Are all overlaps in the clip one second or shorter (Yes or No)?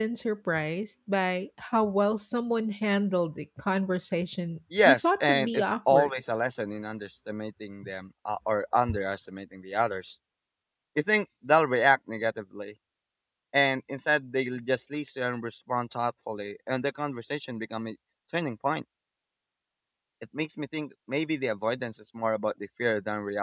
No